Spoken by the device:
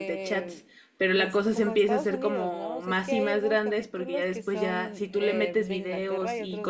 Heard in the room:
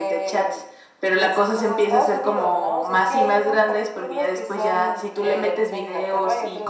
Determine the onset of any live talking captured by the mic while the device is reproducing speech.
none

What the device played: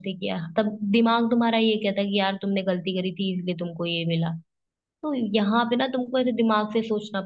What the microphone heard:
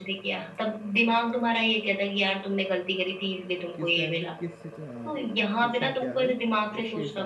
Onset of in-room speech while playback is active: 3.8 s

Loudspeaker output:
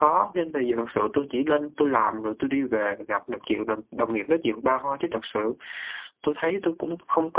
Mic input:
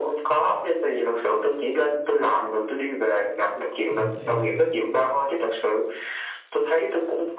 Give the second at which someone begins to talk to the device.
3.9 s

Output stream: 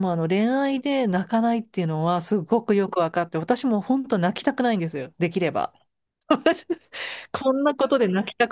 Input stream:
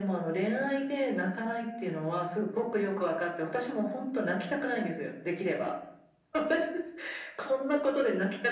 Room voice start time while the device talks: none

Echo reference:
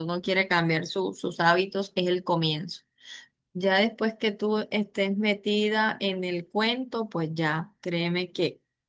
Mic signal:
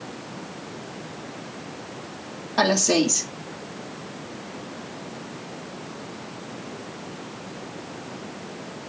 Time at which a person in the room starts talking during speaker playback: 2.6 s

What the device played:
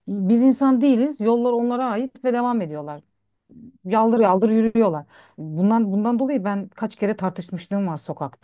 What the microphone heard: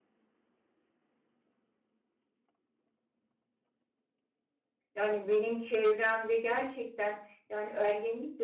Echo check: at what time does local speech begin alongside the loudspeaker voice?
4.9 s

